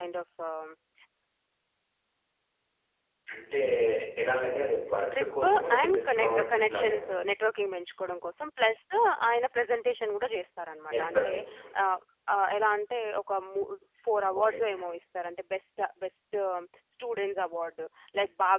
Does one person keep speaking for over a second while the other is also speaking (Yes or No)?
Yes